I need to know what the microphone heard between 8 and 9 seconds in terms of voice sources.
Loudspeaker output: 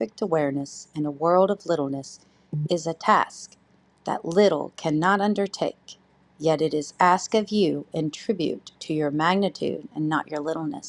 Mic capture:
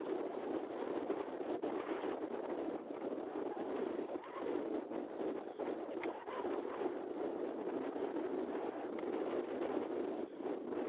neither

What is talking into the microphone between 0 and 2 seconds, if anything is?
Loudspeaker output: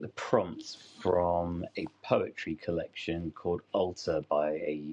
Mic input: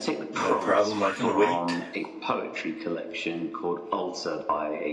both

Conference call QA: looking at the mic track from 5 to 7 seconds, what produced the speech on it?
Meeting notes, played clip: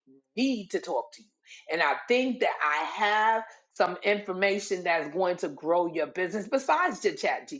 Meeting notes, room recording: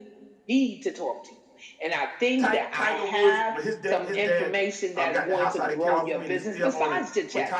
both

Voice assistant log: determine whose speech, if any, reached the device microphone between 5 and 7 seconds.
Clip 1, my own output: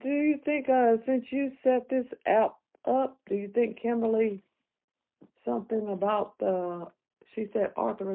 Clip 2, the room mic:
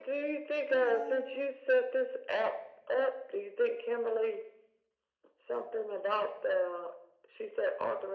echo only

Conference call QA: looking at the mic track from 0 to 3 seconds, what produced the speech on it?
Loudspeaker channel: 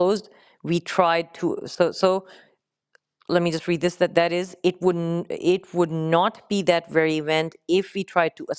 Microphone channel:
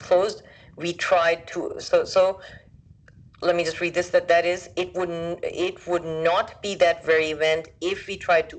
echo only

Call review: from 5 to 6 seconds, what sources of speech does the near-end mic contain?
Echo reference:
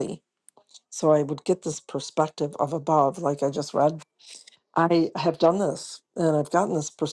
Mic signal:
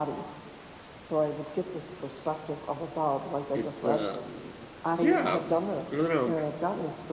both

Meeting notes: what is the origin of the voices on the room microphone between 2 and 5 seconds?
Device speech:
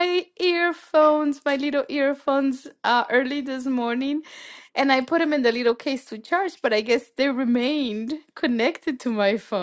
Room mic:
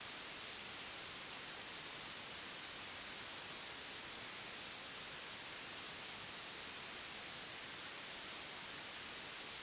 neither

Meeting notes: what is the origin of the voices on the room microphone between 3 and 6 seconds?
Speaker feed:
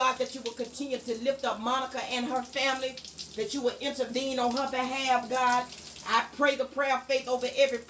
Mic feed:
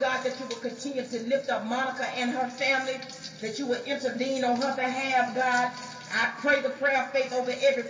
echo only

